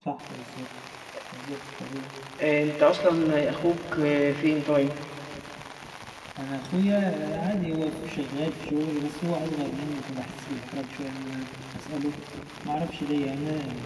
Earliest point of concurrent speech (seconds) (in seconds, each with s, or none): none